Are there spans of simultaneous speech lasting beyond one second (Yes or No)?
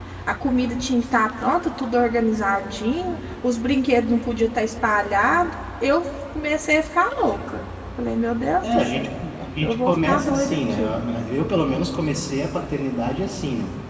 Yes